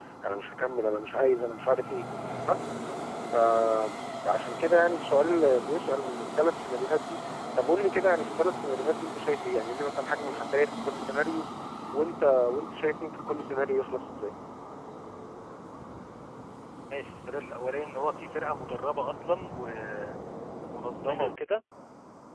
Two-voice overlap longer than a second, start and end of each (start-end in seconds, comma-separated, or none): none